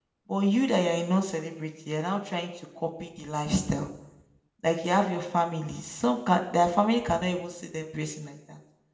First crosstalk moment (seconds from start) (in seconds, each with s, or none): none